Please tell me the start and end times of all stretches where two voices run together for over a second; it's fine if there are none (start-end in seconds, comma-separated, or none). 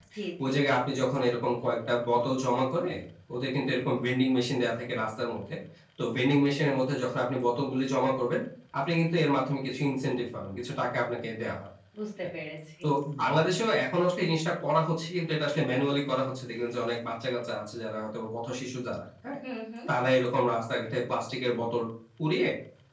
none